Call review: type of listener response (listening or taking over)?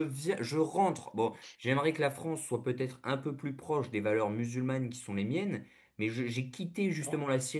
listening